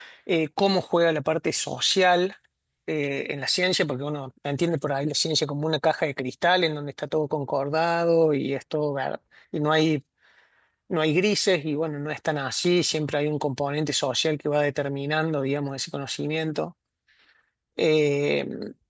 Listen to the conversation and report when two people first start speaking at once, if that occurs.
none

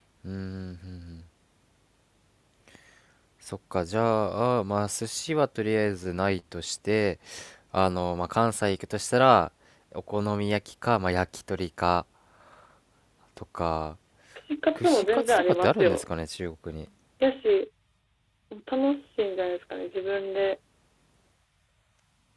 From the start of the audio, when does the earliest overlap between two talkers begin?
14.8 s

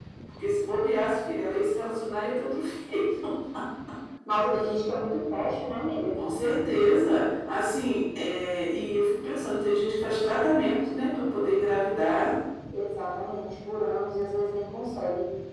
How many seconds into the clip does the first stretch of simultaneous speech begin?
none

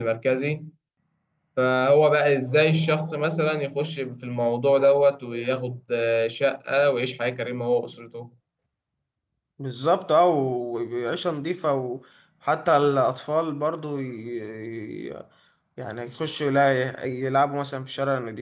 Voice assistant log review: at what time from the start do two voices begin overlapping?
none

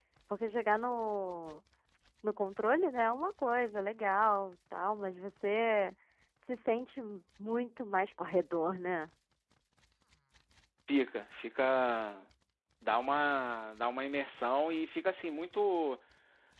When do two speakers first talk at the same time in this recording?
none

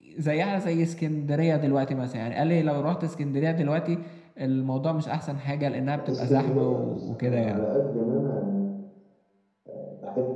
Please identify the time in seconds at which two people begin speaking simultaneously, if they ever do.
6.0 s

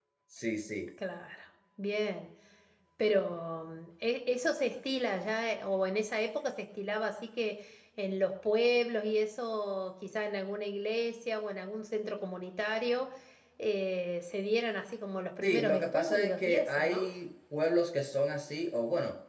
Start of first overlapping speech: 15.4 s

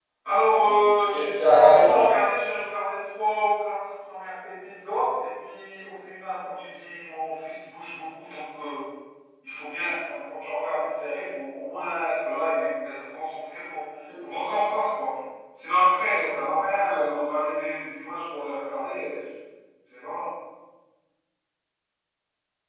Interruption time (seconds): 0.6 s

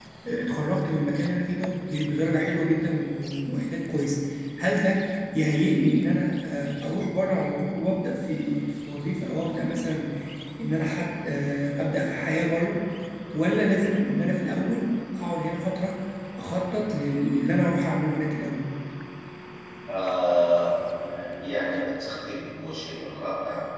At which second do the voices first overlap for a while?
none

